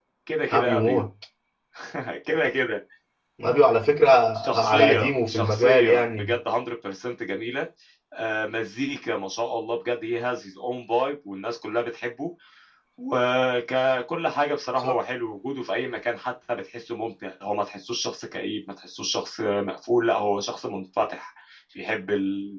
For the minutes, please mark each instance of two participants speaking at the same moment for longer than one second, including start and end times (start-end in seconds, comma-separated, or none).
4.6-6.3